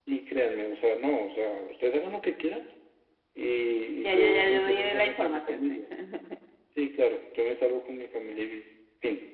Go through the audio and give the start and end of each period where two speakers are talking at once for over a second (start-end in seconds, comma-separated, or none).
4.0-5.7